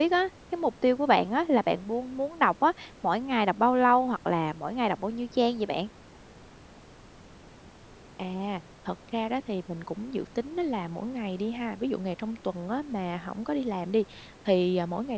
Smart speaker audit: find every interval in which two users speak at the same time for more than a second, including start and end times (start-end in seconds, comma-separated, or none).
none